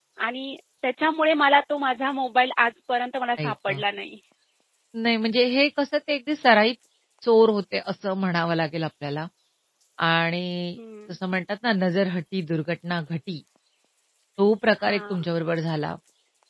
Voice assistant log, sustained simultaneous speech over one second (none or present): none